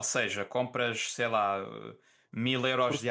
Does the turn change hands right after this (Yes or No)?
No